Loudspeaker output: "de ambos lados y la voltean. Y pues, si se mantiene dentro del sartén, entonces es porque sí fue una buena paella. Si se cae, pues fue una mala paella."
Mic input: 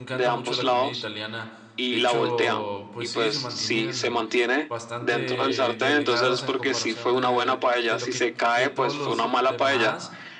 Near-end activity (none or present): present